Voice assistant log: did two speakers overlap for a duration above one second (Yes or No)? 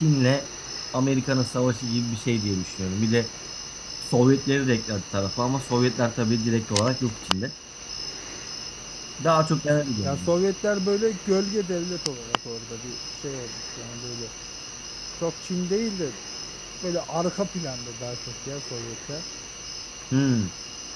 No